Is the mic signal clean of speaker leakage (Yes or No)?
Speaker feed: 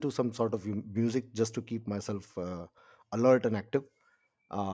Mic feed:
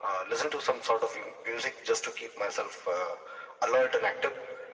No